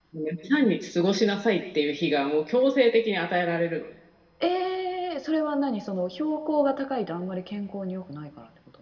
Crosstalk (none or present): none